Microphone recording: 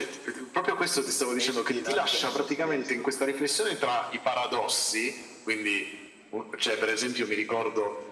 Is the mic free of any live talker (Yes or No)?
No